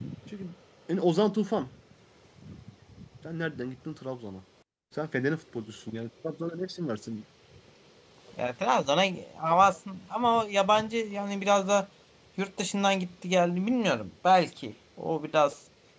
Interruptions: none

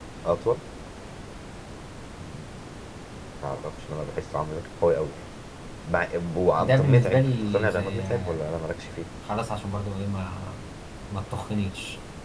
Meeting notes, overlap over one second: present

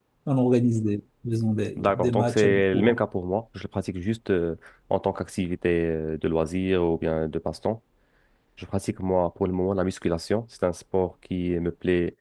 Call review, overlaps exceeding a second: present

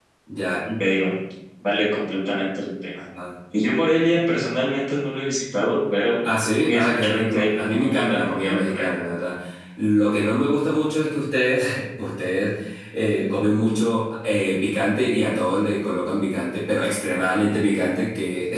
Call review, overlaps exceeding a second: present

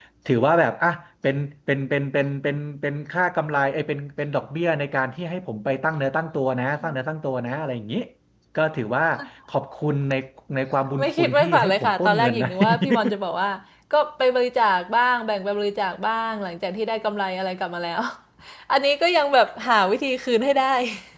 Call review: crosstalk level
present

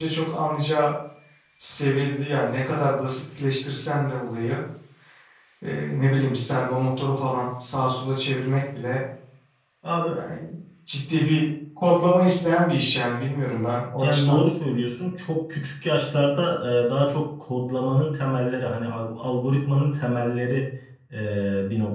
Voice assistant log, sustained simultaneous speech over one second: none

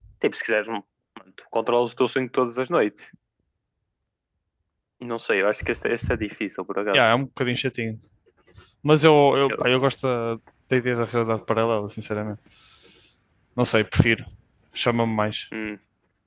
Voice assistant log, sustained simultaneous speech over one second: none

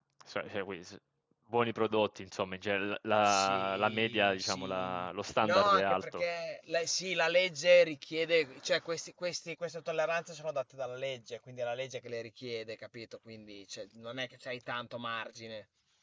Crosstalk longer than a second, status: present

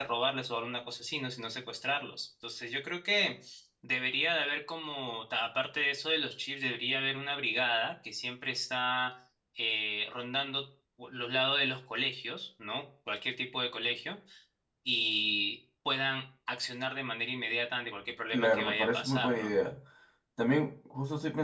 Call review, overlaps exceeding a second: present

